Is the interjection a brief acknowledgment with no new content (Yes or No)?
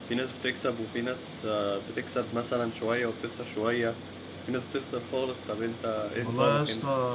No